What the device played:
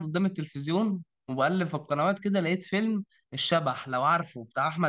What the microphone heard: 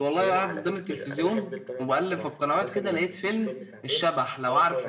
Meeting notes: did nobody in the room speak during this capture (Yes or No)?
No